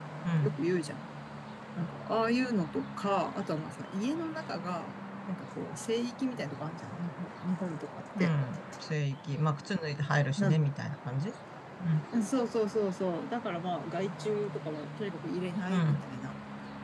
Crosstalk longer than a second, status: none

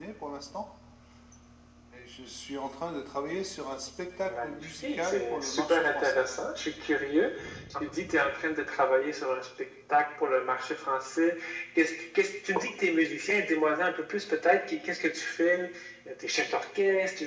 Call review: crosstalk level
present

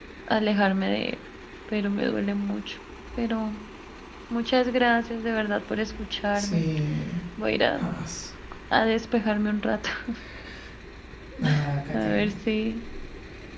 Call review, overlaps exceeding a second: none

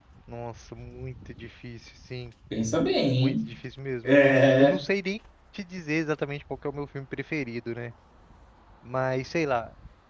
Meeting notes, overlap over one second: none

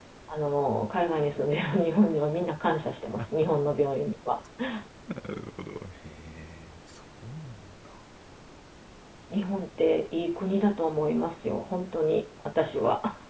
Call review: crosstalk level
none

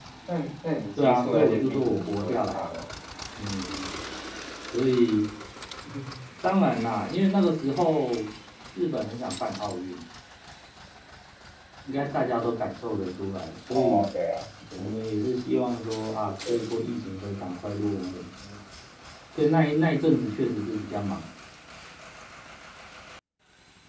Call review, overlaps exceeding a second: present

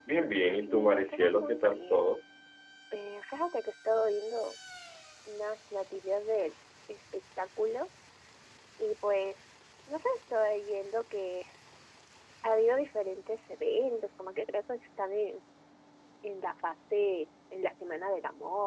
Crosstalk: present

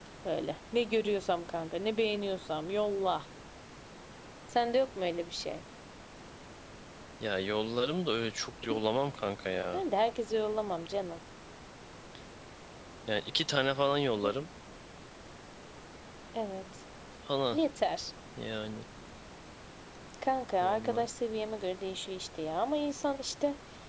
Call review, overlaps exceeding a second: none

